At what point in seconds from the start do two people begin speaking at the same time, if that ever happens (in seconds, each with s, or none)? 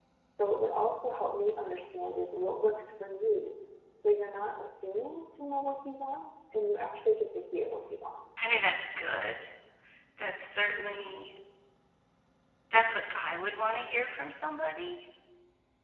none